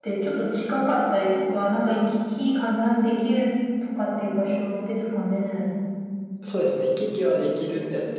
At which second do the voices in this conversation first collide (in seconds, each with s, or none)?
none